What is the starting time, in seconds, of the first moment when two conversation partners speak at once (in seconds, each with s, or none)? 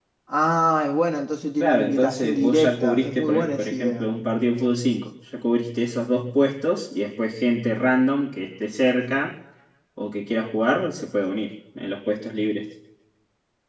1.6 s